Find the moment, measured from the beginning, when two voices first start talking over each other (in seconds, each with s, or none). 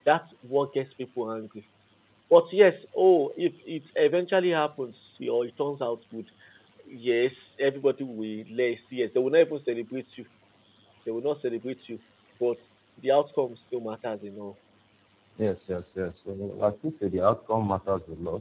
none